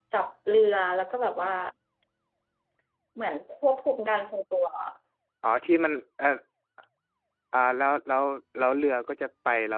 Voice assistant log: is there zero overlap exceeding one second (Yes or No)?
Yes